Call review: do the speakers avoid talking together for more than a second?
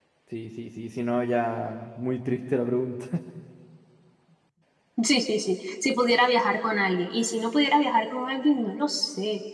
Yes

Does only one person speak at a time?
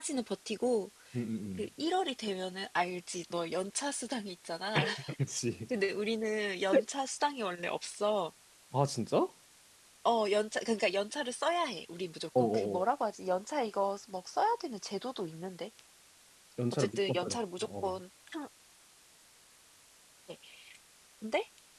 No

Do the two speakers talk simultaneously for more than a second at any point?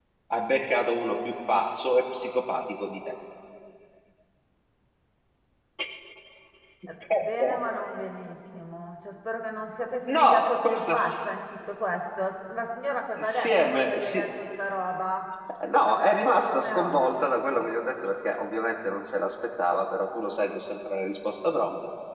Yes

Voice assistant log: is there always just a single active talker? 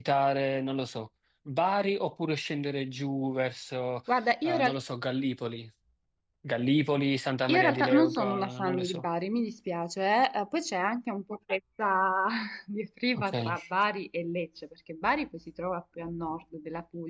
No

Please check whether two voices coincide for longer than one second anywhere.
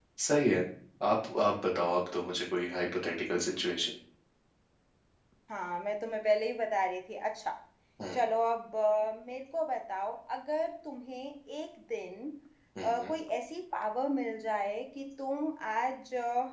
No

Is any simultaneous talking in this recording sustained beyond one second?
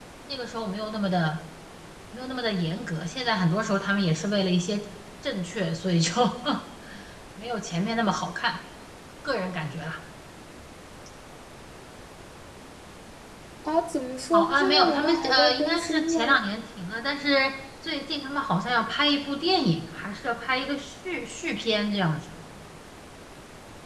Yes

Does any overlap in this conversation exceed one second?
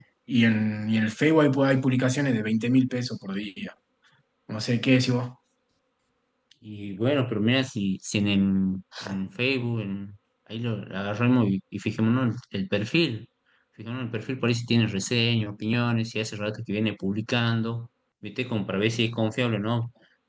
No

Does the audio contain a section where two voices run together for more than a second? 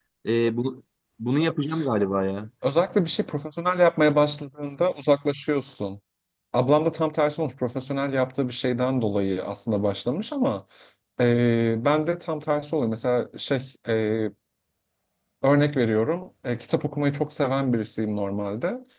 No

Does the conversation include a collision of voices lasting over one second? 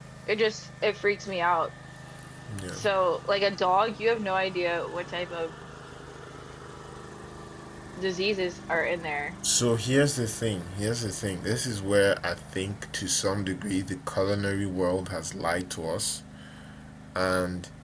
No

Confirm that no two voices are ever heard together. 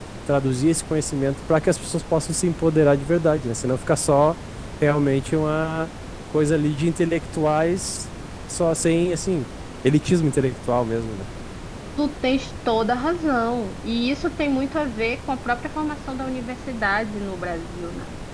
Yes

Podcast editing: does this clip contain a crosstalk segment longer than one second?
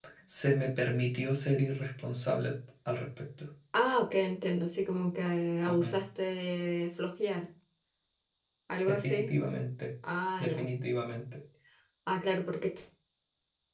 No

